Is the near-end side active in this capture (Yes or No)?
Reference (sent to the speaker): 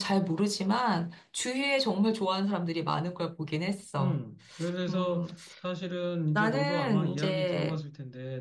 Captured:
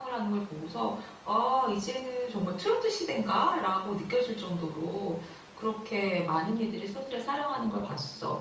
Yes